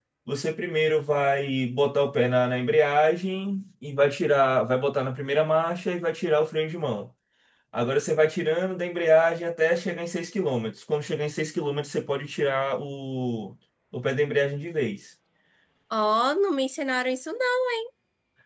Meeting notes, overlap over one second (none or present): none